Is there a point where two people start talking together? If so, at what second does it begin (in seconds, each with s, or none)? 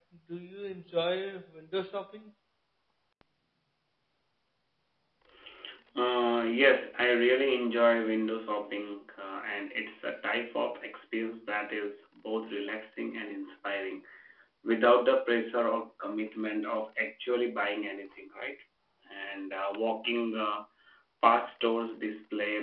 none